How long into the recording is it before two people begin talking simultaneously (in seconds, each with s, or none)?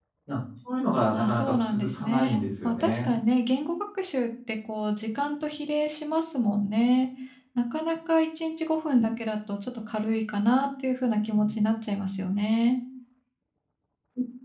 1.1 s